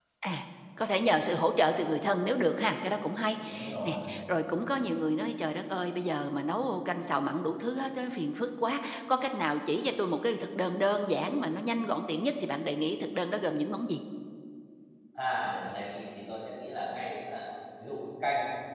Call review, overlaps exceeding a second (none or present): none